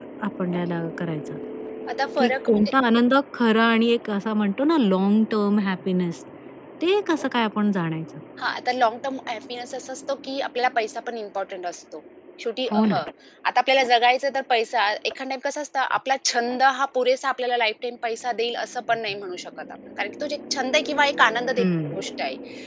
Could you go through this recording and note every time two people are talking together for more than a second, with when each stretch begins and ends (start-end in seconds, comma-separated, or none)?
none